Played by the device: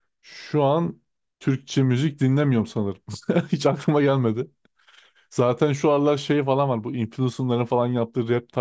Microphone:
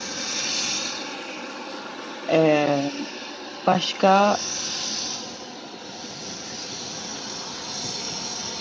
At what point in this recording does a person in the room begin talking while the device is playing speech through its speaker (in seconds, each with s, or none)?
2.3 s